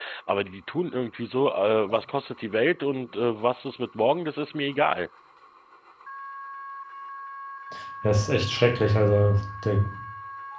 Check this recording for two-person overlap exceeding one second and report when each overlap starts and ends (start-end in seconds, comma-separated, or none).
none